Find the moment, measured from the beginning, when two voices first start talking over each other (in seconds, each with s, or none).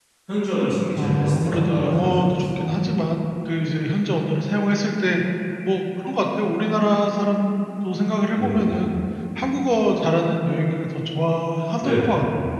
1.0 s